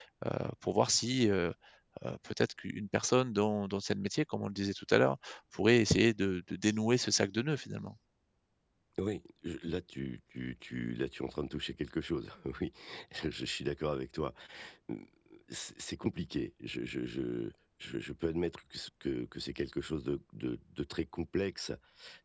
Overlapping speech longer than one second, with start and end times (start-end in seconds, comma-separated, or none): none